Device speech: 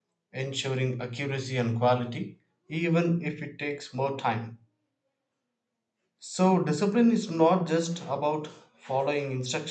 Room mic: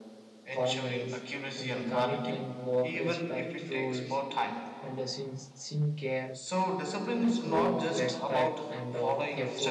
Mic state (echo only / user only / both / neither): both